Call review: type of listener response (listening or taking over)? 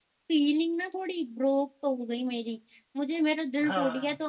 listening